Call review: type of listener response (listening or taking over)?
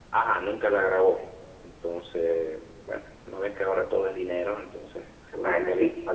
listening